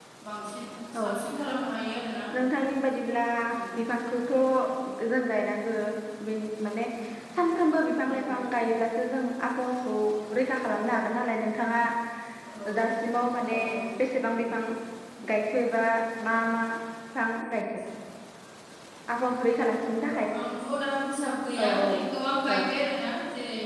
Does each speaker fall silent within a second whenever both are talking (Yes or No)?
Yes